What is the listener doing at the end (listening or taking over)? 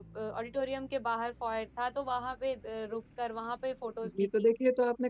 taking over